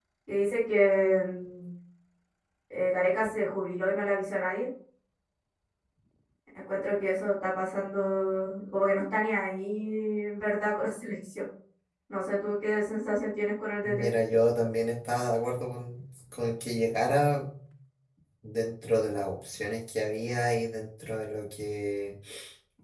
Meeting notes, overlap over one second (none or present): none